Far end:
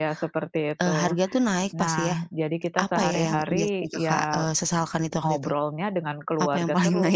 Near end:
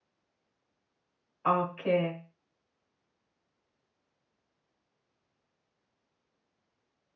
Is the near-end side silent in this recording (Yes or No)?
No